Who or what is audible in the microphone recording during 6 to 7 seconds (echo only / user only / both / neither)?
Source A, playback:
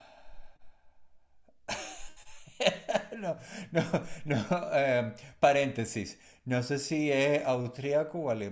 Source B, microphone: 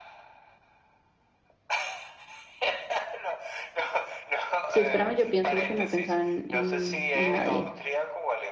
both